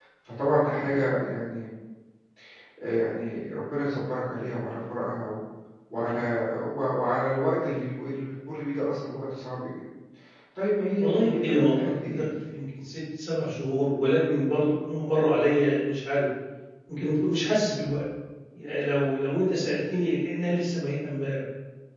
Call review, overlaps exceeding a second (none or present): present